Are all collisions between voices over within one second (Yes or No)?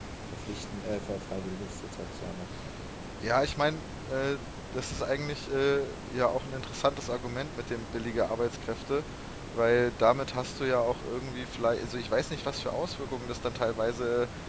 Yes